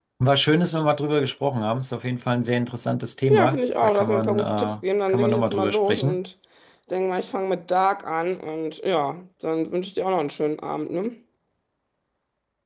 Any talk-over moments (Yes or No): Yes